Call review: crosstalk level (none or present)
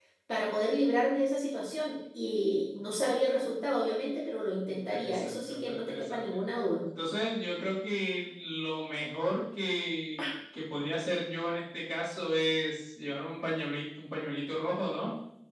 present